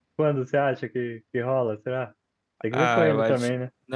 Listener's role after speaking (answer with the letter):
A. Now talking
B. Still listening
A